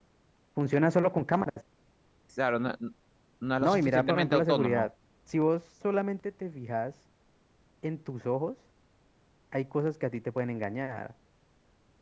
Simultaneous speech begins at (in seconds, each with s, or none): 3.6 s